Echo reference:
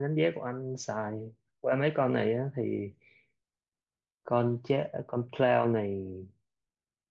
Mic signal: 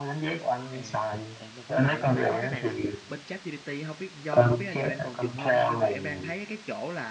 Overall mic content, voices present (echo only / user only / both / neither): both